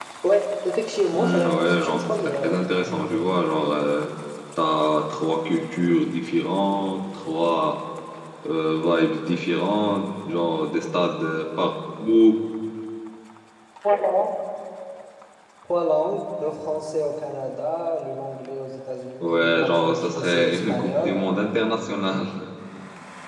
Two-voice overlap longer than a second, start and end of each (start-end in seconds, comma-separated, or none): 1.1-3.1, 19.2-21.2